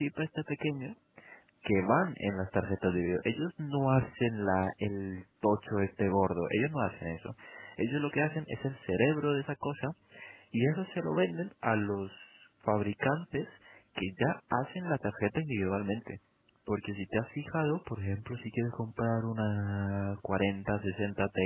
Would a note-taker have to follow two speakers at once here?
No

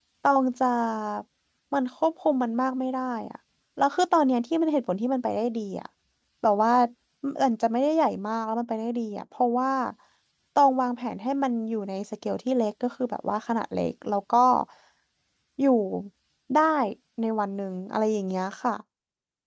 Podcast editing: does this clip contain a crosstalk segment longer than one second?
No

